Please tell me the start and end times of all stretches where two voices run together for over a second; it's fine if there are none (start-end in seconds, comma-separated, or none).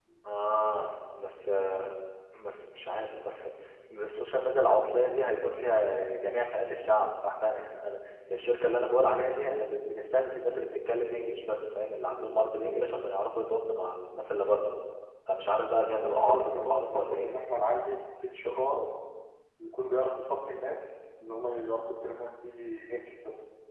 16.0-17.3